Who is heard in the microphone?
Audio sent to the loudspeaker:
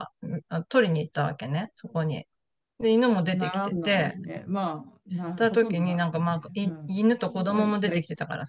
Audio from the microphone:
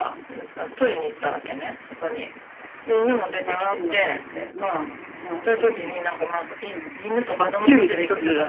both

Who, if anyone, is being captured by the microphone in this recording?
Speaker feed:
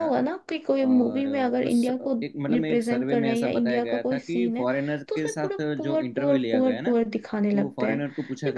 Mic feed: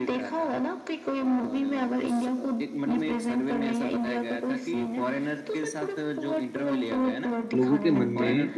both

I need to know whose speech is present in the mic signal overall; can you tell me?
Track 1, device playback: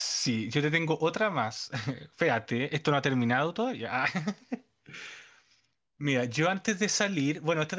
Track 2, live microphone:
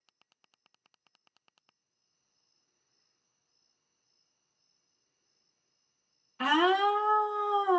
user only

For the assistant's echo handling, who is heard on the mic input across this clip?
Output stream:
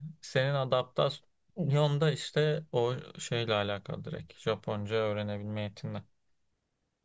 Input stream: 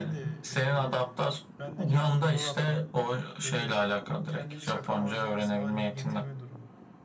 both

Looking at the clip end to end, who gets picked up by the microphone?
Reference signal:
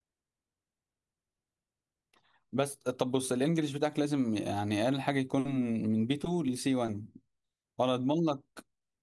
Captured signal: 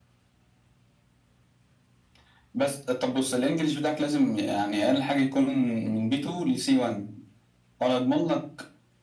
echo only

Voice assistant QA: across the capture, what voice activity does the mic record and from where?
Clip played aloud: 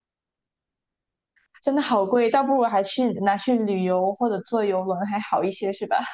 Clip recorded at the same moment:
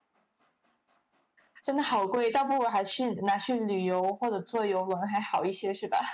echo only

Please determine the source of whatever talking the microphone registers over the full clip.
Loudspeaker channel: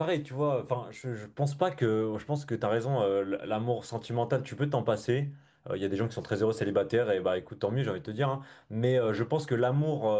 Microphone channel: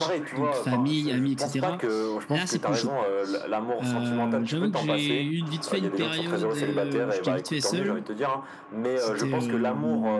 both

